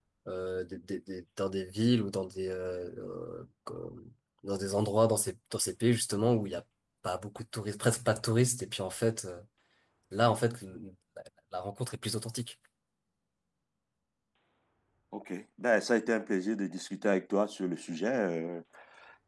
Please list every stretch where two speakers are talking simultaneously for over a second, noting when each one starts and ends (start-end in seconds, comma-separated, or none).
none